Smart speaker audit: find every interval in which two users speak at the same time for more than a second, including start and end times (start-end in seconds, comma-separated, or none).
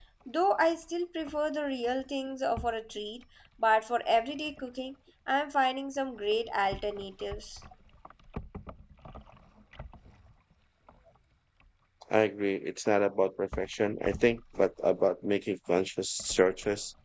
none